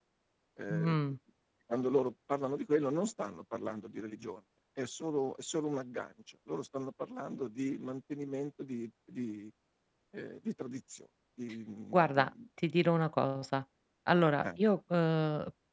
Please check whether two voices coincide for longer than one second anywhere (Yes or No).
No